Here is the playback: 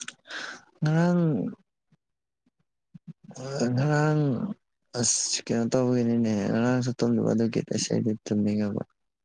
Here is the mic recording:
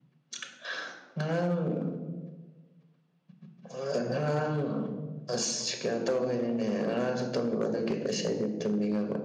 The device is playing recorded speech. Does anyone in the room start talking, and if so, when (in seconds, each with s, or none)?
none